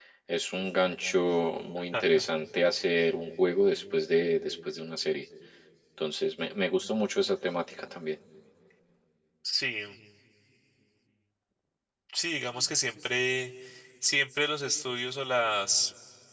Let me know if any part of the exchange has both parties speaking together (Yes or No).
No